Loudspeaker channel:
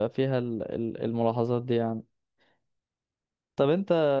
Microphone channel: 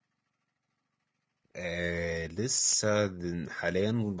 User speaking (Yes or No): Yes